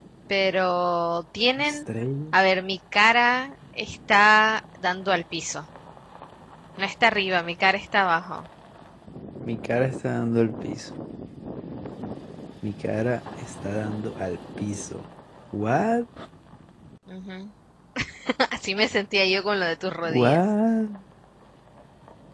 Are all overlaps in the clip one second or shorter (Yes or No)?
Yes